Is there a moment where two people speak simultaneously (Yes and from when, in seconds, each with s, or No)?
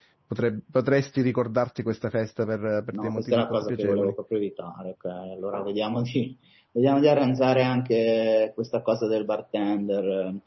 Yes, from 2.9 s